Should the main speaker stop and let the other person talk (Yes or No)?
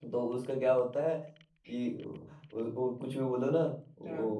No